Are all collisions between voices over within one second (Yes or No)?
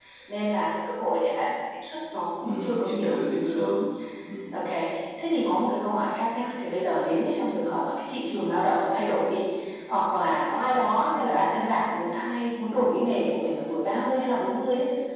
No